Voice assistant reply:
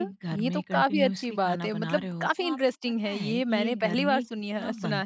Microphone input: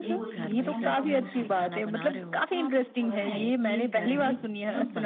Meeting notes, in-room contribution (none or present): present